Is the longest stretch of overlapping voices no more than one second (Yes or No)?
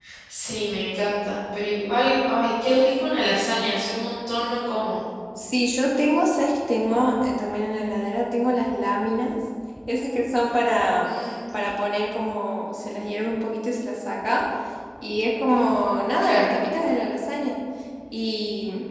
Yes